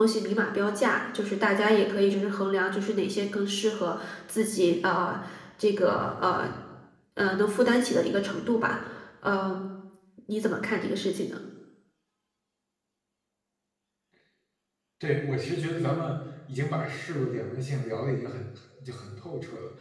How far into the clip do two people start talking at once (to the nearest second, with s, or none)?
none